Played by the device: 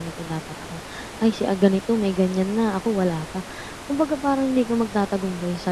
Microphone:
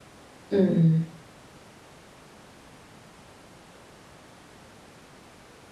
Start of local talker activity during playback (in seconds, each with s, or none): 0.5 s